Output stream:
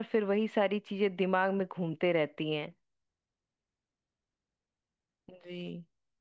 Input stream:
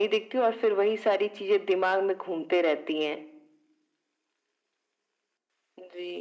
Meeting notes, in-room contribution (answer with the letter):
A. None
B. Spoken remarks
A